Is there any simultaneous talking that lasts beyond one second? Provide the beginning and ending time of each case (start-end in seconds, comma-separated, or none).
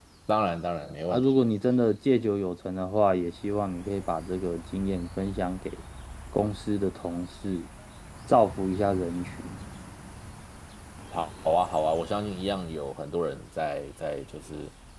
none